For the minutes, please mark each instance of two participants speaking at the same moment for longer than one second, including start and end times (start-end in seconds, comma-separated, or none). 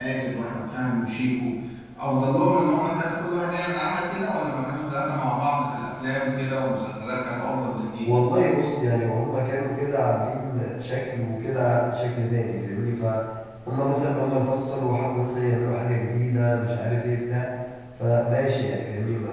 none